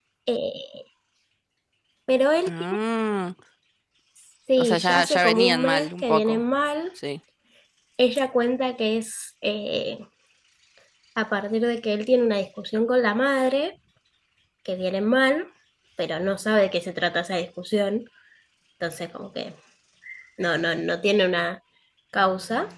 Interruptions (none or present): present